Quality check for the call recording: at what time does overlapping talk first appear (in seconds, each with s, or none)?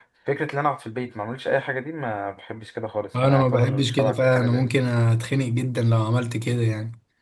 3.1 s